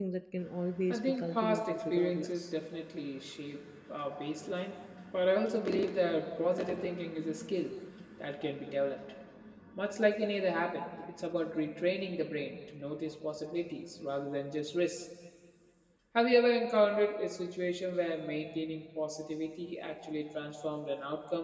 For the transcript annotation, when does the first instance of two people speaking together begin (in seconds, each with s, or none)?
0.9 s